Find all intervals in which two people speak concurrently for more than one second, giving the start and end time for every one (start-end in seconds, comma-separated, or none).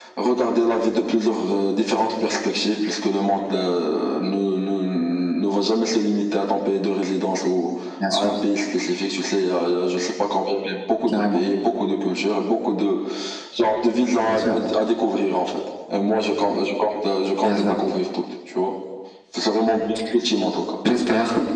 none